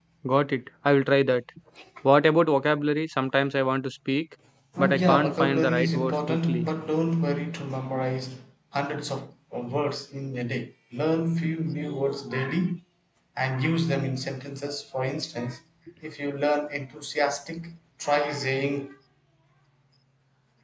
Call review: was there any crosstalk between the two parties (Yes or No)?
Yes